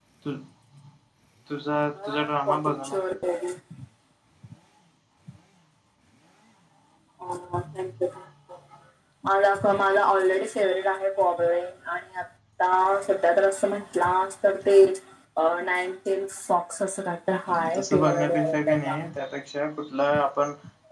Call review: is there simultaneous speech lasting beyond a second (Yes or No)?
Yes